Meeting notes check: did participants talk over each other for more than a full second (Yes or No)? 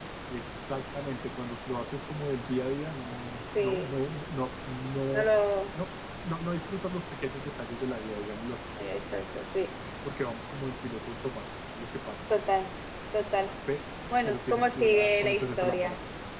Yes